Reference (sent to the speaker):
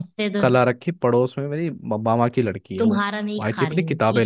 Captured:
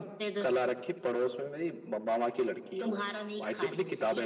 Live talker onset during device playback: none

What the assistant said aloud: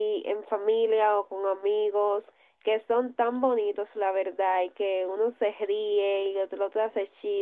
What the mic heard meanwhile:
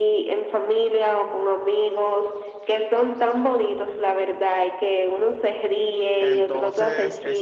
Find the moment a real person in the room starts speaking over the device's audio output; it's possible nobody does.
6.2 s

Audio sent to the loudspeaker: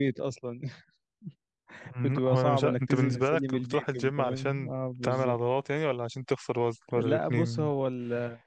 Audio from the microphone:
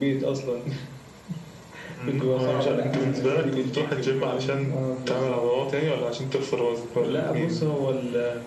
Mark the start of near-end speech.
2.4 s

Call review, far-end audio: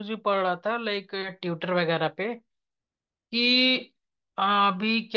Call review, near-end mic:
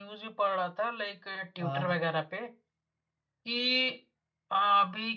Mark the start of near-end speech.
1.6 s

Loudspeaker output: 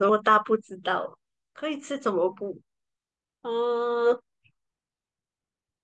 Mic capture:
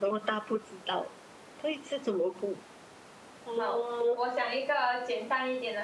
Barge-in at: 3.6 s

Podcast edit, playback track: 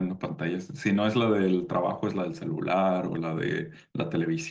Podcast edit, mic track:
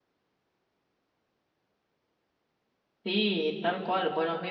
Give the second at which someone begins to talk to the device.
3.0 s

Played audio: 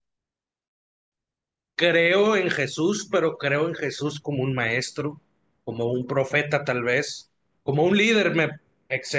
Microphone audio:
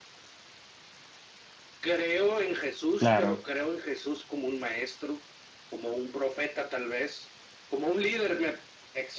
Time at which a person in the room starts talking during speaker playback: 3.0 s

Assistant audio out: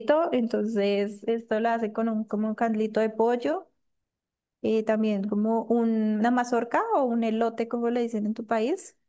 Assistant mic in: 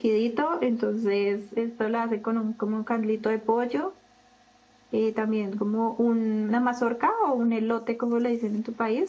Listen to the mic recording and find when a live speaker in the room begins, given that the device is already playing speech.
none

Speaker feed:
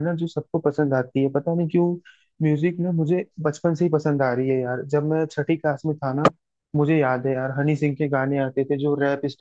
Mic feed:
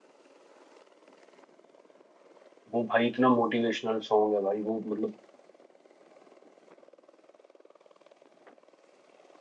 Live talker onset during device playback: 2.7 s

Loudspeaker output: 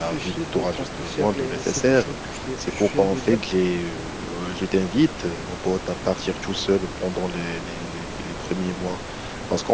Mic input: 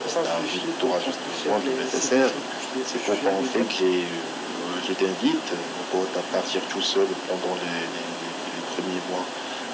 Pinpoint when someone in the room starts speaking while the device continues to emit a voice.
none

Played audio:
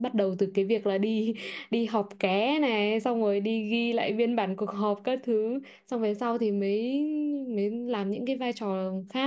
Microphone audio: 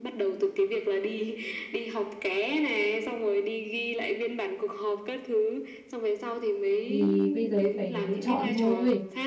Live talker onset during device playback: 6.8 s

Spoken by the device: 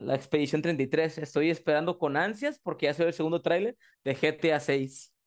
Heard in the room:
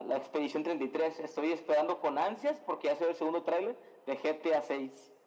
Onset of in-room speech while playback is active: none

